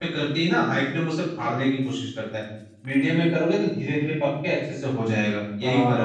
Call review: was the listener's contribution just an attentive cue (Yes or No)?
No